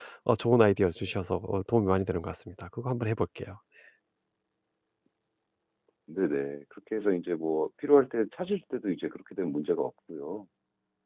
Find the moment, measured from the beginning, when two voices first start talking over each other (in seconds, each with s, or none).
none